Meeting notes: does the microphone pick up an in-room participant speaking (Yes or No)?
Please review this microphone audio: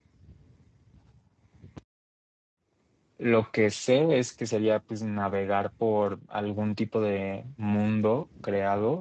Yes